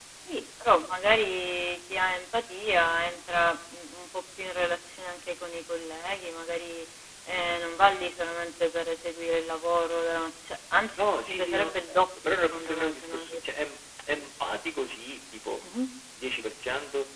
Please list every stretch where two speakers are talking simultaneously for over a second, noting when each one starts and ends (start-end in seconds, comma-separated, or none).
11.0-13.4